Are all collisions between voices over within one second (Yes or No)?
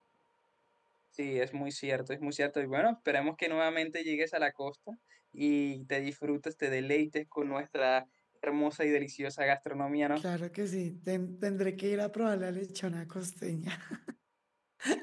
Yes